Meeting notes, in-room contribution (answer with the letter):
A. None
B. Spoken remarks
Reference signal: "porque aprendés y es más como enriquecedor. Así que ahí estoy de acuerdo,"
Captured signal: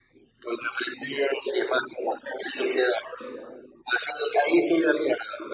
A